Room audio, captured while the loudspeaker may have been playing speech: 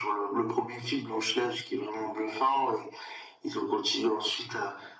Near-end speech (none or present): none